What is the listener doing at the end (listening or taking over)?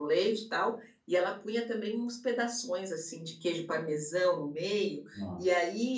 listening